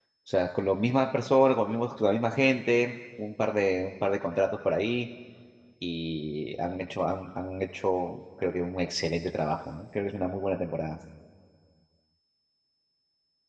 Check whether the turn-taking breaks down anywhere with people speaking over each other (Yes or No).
No